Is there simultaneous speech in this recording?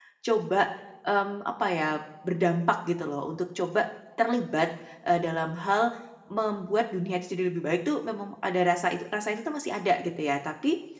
No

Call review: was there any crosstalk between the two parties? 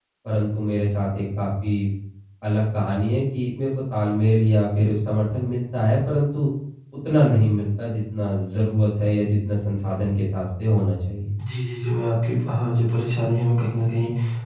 No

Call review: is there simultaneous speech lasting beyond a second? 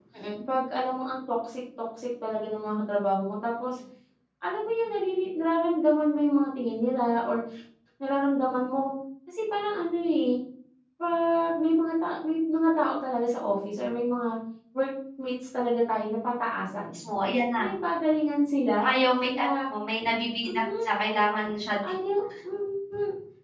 No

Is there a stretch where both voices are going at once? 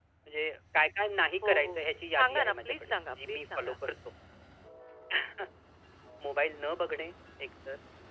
Yes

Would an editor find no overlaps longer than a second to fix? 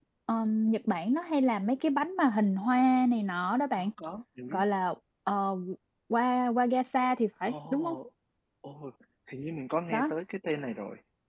Yes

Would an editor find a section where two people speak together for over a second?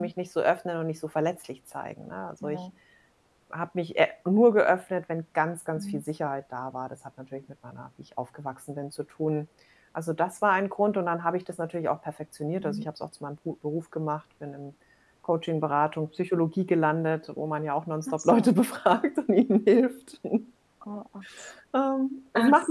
No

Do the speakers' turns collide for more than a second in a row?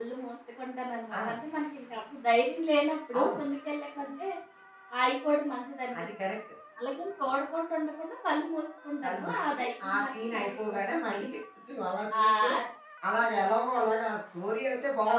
Yes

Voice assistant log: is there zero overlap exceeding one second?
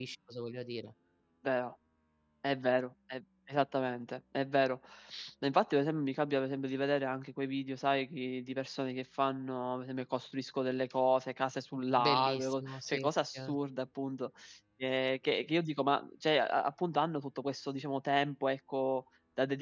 No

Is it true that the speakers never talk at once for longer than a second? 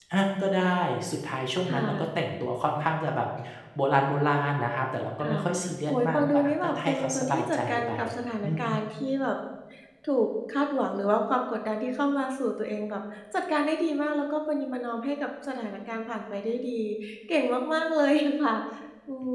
No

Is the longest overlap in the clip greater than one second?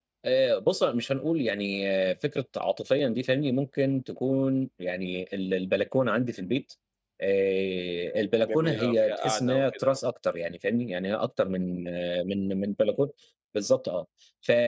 Yes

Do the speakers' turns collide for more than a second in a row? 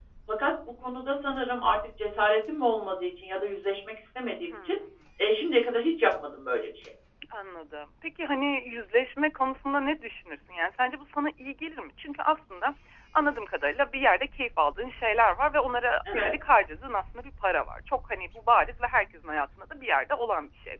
No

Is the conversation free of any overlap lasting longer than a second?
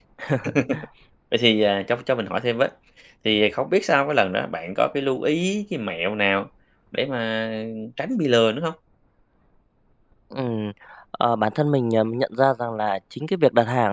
Yes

